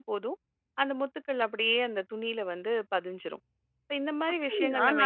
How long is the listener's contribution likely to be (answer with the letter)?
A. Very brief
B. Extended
B